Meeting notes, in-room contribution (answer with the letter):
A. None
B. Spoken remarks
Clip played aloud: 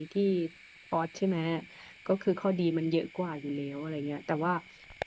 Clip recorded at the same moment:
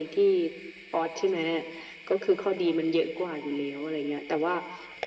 A